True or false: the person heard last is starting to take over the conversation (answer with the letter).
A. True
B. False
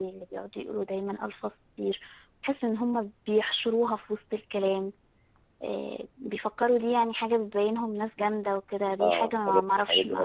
A